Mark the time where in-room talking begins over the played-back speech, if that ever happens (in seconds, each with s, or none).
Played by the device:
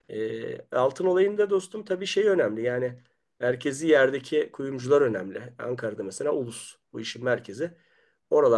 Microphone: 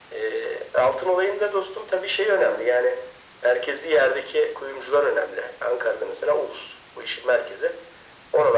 none